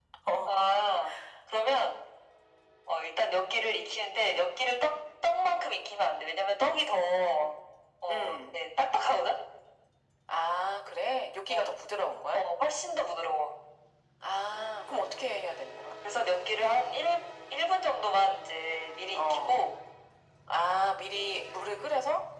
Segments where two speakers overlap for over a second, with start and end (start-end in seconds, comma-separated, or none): none